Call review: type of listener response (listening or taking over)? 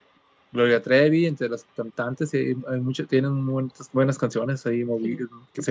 listening